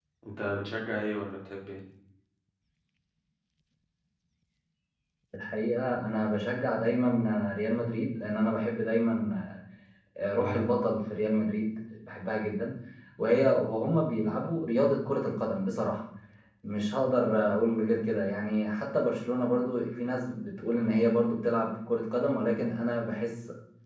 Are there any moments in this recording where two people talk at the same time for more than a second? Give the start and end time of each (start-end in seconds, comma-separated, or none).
none